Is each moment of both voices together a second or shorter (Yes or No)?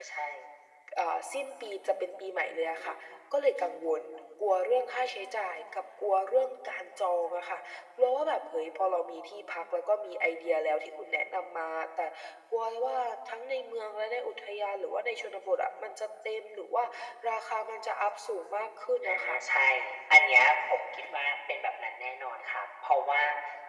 Yes